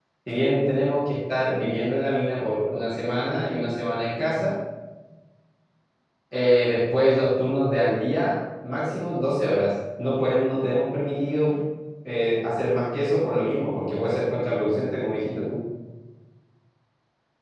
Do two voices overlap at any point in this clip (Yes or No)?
No